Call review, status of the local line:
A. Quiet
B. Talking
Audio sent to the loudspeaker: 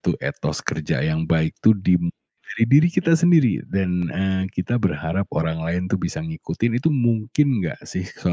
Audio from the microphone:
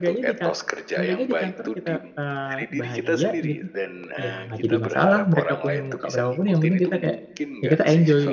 B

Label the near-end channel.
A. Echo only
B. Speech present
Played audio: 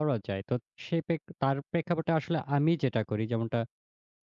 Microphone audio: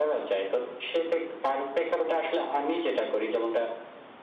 A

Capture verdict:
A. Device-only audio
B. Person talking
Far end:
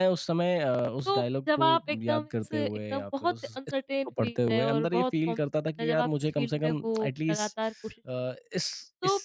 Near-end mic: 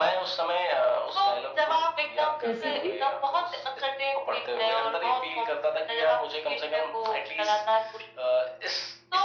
B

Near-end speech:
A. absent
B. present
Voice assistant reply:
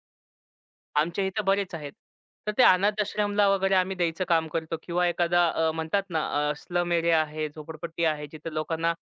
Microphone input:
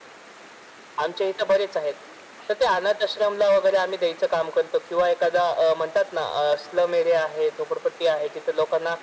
A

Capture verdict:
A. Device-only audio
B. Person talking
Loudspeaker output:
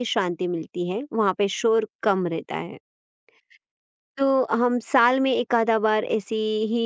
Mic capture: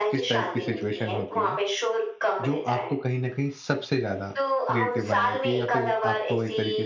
B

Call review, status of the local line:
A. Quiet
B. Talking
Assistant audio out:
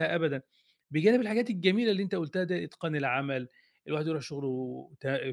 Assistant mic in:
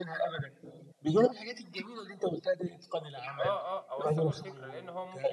B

